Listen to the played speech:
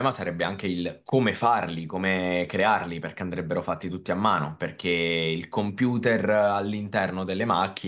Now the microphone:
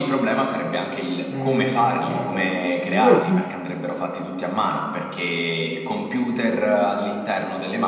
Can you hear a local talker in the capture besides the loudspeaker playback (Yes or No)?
Yes